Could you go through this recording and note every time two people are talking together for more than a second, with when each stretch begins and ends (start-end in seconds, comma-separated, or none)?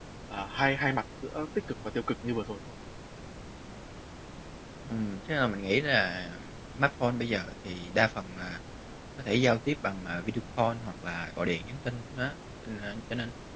none